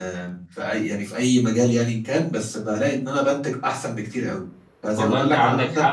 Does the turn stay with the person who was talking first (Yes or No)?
No